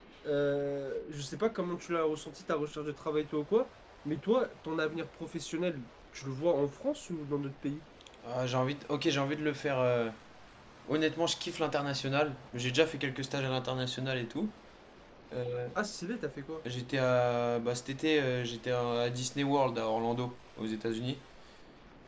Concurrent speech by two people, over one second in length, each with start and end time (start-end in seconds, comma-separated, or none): none